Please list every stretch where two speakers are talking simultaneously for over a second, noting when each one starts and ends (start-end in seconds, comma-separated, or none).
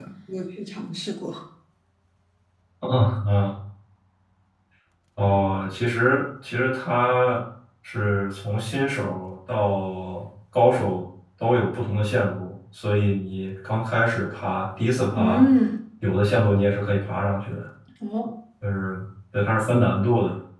none